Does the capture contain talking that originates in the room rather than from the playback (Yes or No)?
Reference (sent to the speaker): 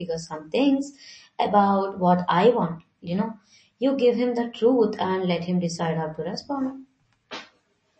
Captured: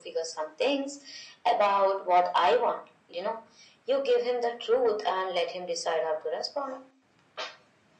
No